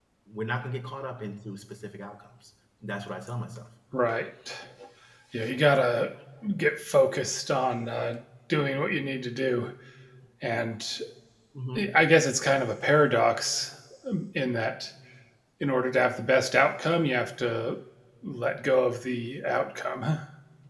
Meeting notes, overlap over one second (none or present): none